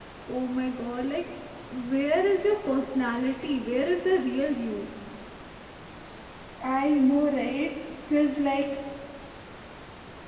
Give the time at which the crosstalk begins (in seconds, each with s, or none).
none